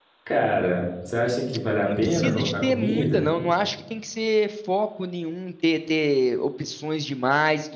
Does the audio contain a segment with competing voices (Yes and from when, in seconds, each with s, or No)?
Yes, from 1.8 s